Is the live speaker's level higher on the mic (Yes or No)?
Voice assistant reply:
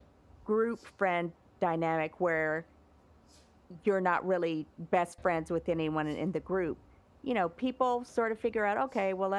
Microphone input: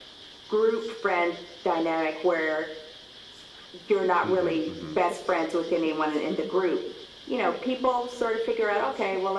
No